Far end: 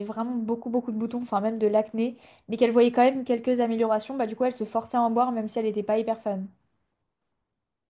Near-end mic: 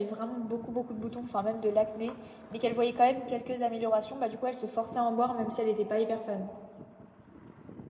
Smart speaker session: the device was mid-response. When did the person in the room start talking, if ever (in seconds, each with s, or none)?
none